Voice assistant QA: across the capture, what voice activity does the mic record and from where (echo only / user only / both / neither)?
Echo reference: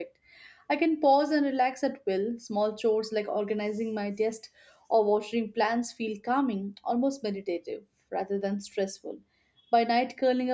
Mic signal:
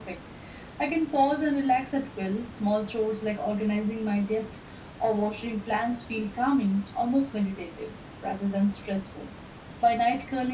echo only